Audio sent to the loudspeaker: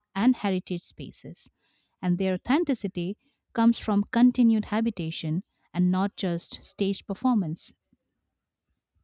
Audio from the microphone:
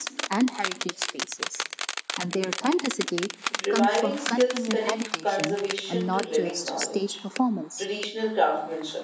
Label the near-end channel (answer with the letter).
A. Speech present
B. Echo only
A